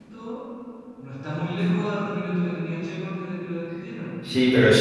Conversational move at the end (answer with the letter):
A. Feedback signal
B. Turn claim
B